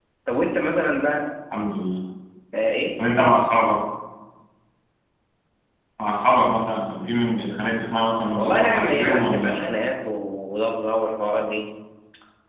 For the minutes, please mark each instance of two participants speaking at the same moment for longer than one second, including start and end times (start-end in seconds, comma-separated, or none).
8.4-9.7